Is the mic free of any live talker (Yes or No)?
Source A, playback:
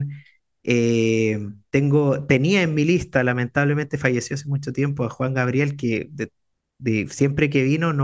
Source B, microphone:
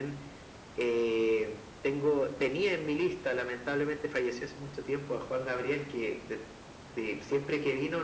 Yes